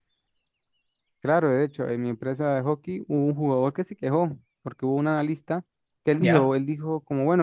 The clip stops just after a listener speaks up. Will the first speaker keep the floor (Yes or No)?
Yes